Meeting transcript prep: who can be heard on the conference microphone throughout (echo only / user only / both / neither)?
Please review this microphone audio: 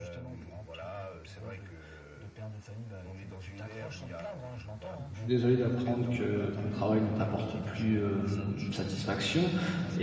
both